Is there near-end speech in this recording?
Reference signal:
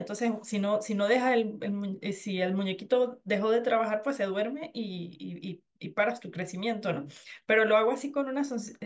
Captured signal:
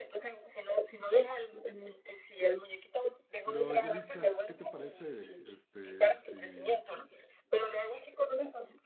Yes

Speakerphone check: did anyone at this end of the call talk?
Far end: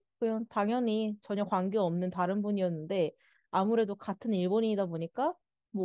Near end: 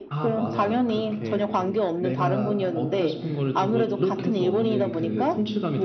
Yes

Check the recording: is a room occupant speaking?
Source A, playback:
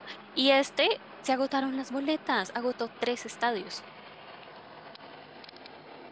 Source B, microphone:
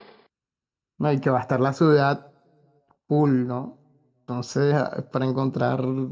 Yes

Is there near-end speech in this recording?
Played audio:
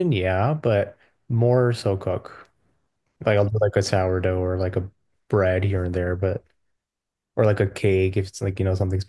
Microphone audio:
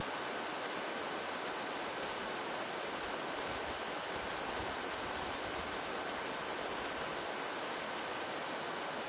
No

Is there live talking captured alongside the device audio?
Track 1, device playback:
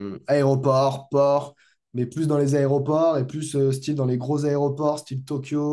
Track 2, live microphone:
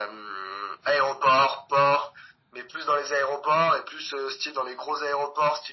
No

